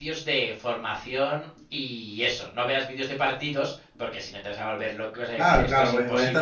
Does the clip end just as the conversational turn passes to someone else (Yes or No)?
Yes